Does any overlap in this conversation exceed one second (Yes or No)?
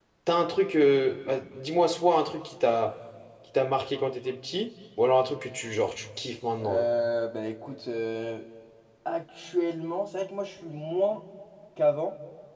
No